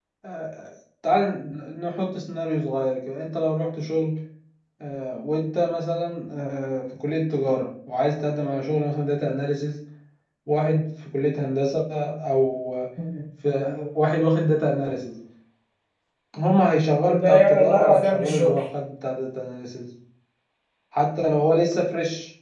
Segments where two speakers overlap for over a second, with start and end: 17.1-18.6

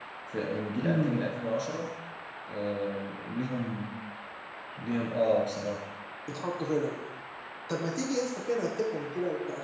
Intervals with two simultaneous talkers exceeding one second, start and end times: none

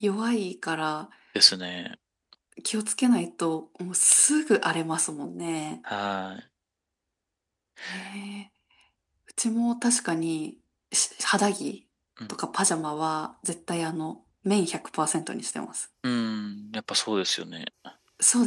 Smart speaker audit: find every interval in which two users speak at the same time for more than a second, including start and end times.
none

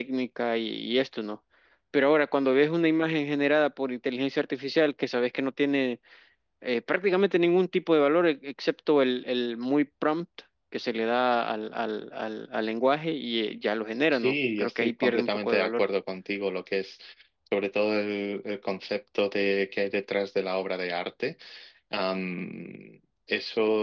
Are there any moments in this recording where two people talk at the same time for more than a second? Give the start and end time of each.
14.1-15.8

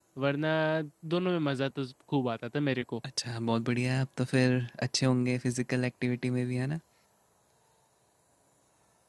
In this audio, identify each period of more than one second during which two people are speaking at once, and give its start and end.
none

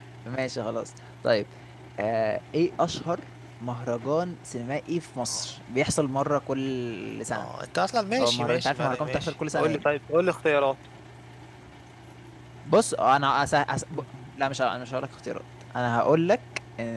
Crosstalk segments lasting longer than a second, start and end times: 8.2-9.8

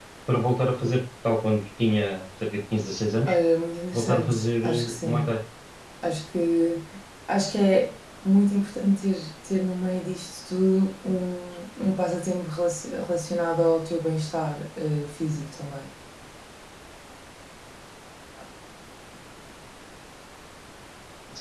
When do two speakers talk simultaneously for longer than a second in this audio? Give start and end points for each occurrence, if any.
3.9-5.3

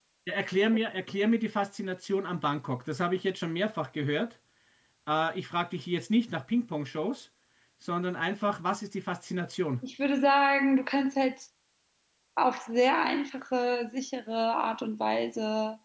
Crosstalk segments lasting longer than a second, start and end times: none

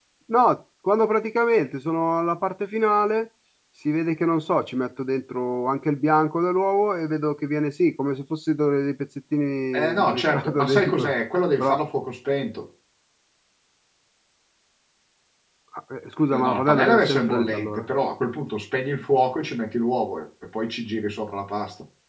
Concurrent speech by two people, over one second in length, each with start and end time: 9.7-11.1, 16.3-17.9

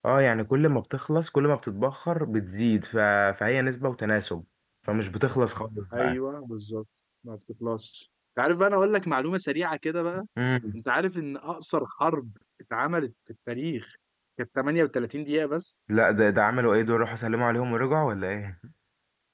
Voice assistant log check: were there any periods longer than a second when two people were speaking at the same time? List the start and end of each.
none

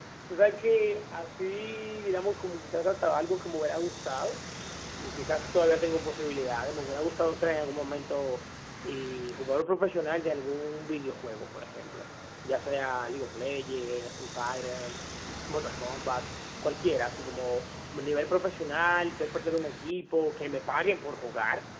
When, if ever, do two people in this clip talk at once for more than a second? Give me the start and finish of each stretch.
none

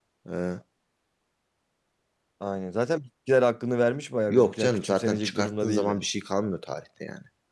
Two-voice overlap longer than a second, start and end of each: 4.3-6.0

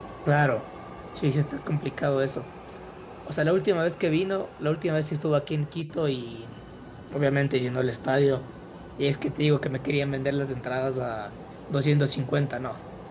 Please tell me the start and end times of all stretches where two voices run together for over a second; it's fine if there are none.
none

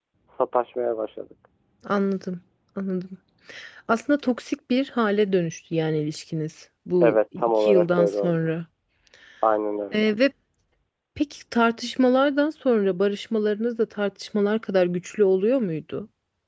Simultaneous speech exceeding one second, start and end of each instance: 7.0-8.5

